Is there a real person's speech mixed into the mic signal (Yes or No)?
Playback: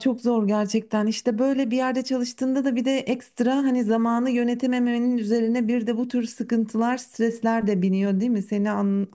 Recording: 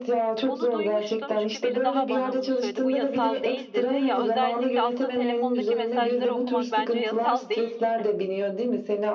Yes